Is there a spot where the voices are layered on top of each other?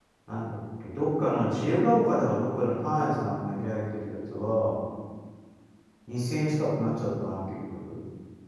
No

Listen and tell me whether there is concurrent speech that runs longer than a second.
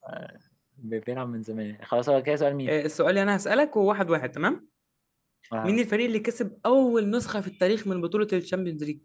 No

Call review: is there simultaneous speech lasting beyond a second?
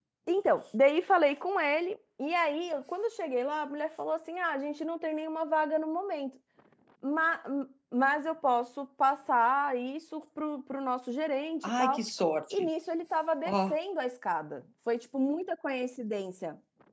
No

